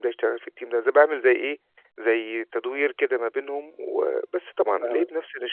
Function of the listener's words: listening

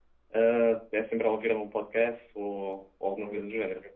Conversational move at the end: taking over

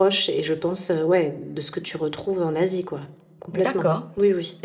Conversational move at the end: taking over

